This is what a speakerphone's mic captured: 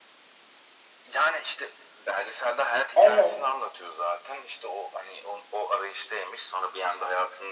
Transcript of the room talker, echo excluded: Evet,

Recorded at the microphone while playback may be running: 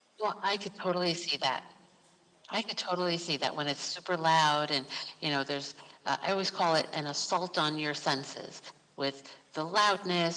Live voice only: none

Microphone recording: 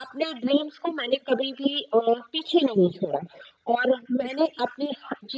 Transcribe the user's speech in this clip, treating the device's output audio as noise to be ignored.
none

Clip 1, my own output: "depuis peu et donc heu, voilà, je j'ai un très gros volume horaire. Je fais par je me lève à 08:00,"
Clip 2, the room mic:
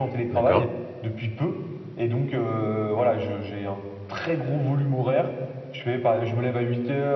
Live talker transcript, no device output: D'accord.

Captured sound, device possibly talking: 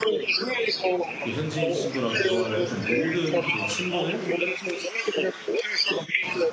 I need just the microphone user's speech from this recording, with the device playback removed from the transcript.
그 현지인 친구랑 대화를 했던 모든 그 친분을

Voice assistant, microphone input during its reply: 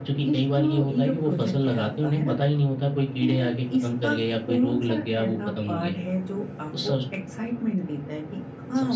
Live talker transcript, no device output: none

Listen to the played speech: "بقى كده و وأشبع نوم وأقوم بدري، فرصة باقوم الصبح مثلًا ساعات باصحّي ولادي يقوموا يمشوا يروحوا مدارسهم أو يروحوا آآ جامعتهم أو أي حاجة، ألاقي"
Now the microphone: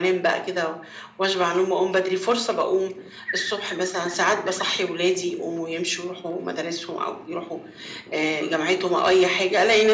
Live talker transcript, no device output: none

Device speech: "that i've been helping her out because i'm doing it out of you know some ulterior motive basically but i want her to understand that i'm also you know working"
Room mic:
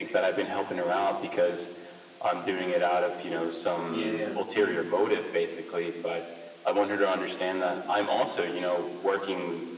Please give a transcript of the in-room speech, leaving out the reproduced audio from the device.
yeah, yeah. hmm

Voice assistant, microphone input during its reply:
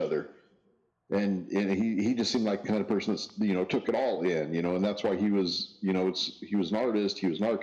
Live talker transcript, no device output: none

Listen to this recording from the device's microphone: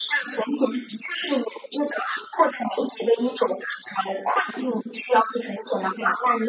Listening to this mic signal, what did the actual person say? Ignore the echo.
none

